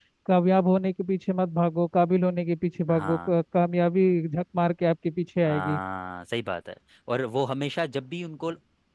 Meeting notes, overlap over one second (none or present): none